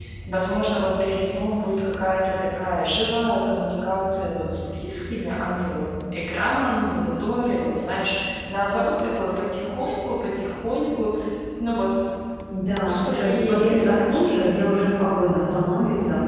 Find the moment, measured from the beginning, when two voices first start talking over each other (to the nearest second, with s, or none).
13 s